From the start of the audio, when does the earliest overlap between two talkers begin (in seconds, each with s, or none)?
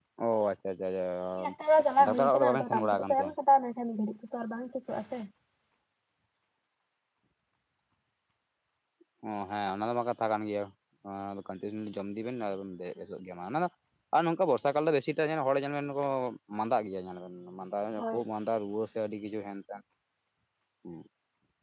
2.0 s